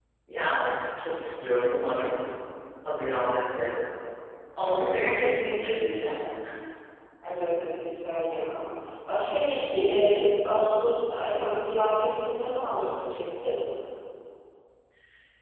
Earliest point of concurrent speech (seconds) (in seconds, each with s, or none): none